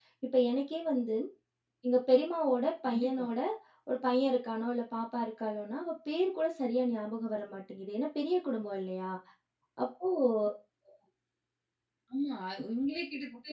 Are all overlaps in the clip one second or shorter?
Yes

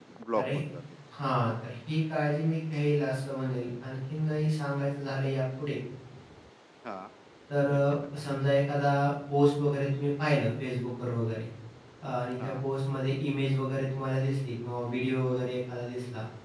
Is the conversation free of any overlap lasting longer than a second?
Yes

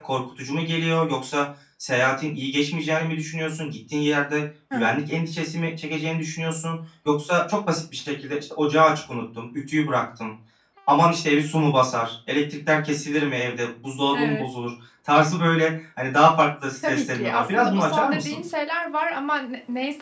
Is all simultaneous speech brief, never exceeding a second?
No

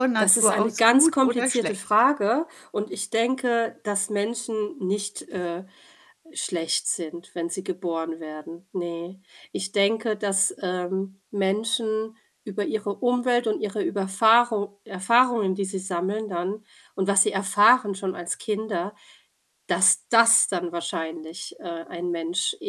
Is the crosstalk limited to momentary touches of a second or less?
No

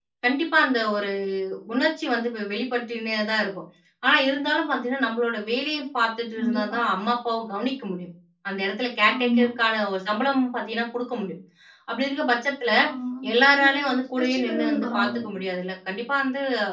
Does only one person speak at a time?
No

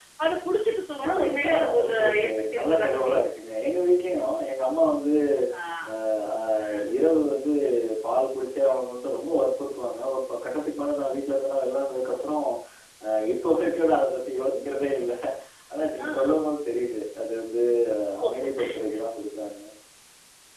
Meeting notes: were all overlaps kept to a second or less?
No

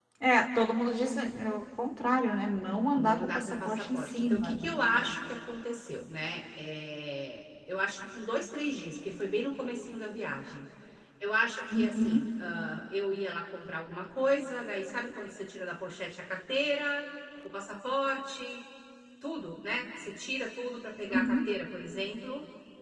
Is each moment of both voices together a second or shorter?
No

